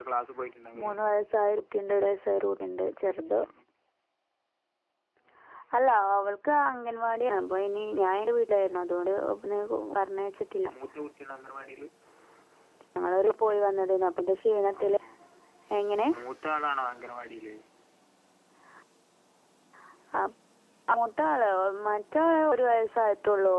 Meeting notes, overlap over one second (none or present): none